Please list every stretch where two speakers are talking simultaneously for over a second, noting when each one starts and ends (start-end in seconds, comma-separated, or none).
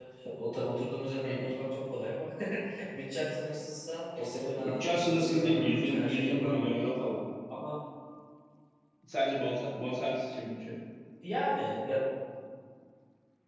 4.6-6.7